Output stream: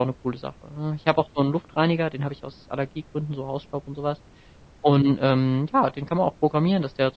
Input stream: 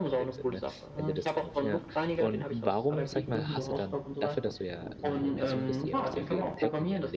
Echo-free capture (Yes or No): No